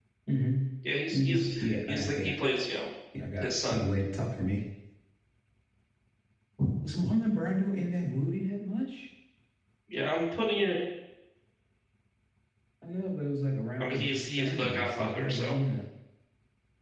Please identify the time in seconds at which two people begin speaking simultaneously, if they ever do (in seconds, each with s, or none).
1.1 s